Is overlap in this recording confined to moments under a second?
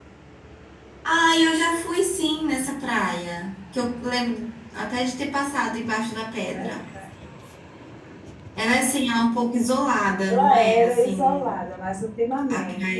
No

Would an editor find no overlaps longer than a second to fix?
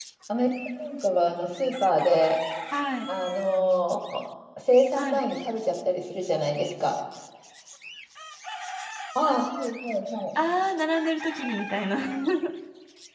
Yes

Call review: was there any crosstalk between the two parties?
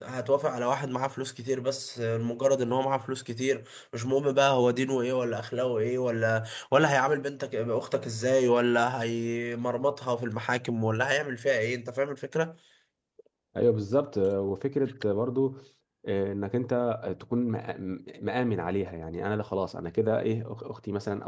No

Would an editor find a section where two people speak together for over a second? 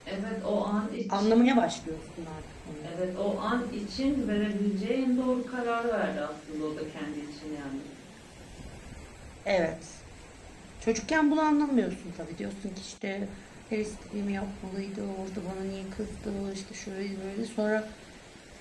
No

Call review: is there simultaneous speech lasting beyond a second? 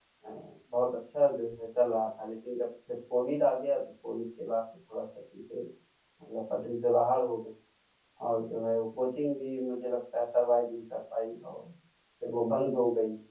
No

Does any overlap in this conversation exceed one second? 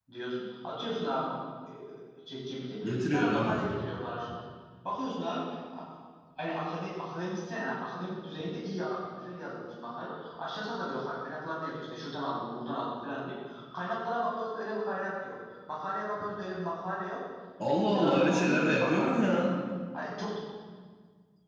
Yes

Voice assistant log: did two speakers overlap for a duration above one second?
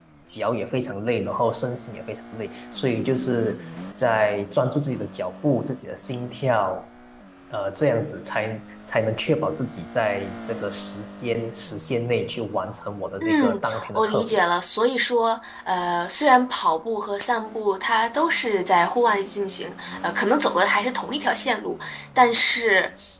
Yes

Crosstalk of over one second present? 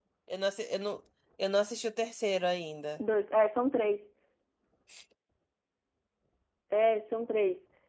No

